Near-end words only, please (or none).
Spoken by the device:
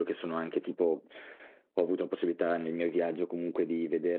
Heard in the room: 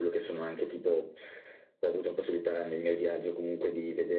none